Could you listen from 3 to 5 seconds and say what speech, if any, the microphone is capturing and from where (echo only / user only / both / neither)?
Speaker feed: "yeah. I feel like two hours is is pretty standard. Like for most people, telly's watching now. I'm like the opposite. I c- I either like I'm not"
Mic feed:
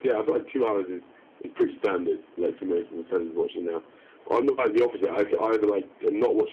echo only